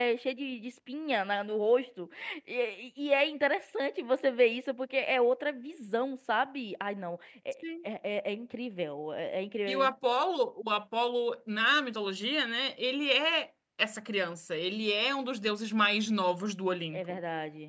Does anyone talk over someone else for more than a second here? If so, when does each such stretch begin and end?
none

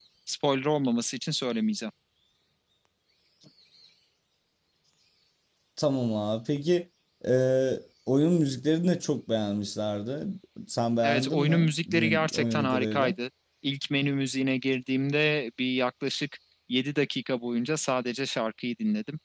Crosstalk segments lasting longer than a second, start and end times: 11.0-13.2

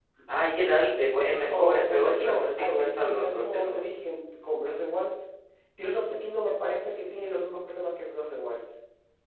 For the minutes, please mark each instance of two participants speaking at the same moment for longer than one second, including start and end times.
1.2-3.8

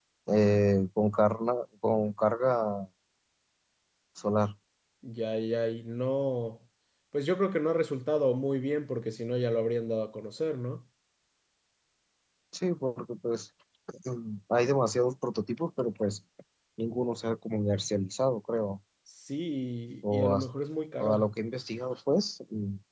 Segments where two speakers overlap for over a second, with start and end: none

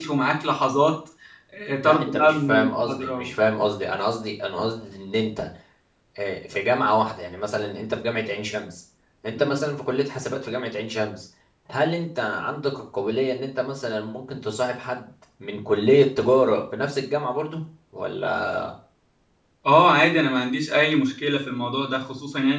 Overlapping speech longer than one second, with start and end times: 1.8-3.3

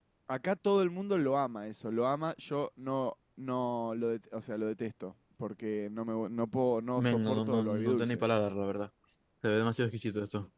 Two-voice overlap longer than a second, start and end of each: 7.0-8.2

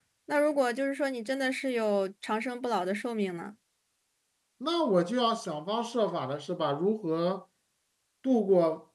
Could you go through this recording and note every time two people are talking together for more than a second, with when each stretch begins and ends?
none

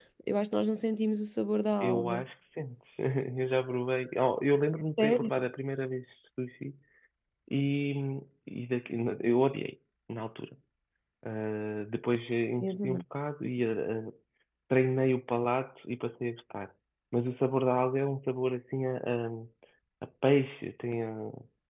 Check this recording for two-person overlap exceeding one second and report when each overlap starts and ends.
none

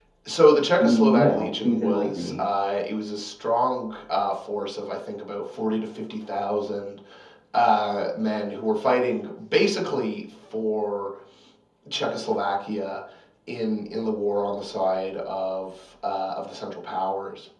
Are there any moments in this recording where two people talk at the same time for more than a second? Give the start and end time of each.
0.8-2.4

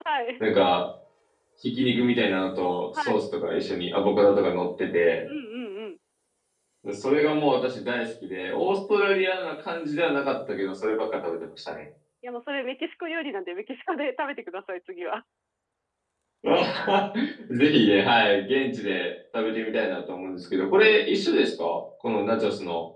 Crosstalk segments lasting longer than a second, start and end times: none

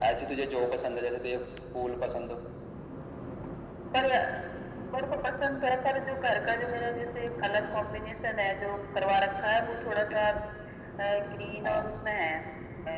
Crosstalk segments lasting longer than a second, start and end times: none

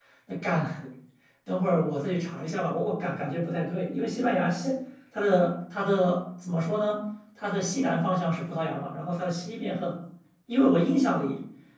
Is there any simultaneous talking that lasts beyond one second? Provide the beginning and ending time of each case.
none

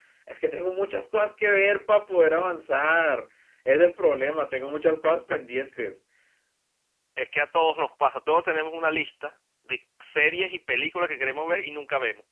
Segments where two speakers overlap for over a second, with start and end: none

